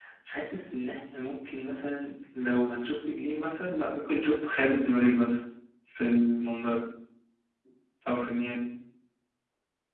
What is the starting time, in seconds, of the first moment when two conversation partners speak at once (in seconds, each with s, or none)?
none